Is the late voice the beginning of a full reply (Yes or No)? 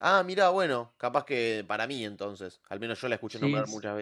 Yes